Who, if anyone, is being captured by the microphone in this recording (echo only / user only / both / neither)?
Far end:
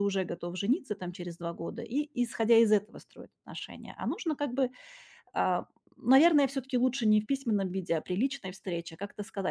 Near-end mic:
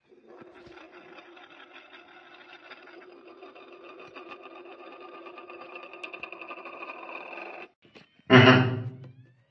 user only